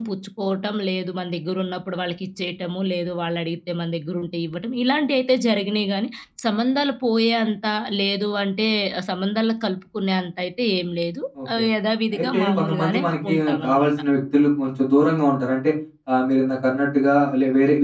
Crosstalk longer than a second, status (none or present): present